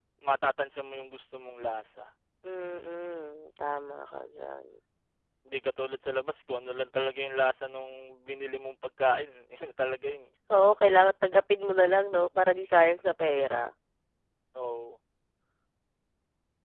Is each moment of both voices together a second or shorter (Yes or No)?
Yes